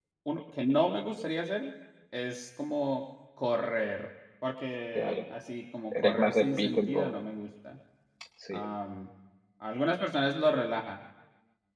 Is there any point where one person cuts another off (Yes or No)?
Yes